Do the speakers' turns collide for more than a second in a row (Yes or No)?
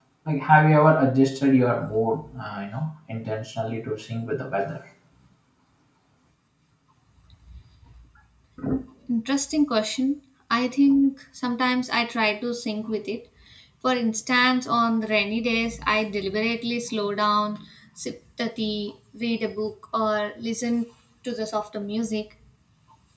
No